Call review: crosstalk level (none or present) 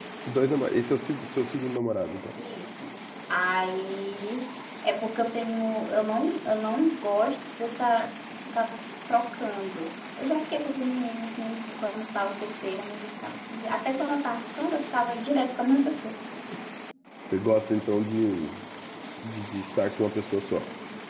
none